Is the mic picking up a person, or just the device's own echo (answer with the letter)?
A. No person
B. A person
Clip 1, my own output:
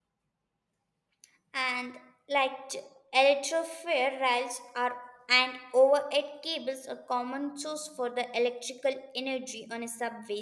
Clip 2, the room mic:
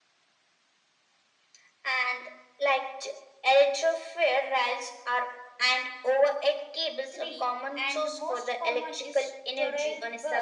B